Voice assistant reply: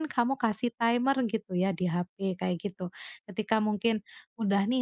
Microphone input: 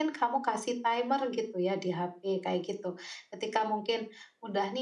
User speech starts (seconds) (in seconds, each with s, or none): none